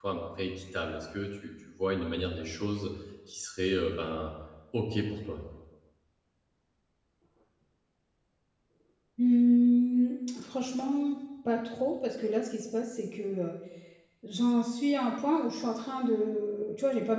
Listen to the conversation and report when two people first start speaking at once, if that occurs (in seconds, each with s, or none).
none